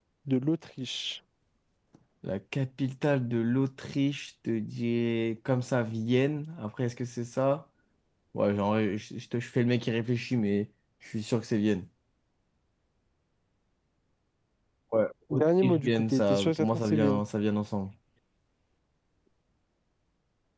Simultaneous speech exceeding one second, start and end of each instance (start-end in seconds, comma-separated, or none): 15.3-17.2